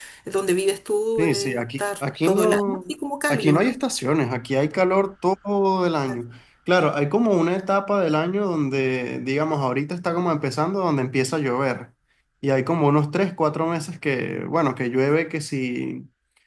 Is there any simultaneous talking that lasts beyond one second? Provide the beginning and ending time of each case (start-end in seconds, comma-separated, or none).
1.2-2.8